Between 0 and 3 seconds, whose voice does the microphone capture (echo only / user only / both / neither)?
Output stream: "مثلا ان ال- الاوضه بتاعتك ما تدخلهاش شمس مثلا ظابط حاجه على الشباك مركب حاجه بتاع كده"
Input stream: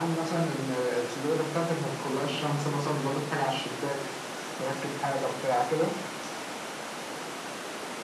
echo only